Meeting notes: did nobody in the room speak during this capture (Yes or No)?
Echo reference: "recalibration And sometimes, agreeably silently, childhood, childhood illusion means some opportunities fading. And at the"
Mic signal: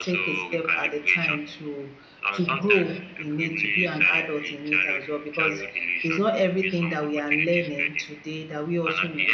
No